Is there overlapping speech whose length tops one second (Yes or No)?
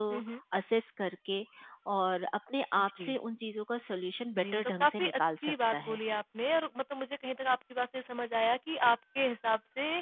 Yes